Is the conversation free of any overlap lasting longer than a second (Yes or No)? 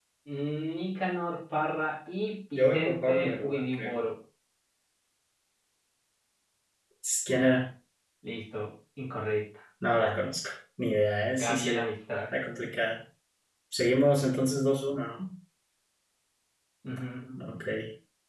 No